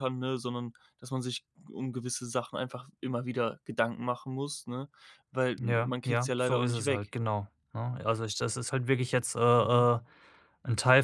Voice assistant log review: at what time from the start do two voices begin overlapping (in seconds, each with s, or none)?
5.6 s